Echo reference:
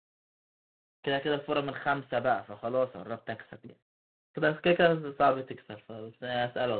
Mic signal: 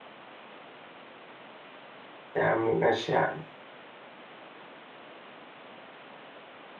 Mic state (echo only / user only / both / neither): user only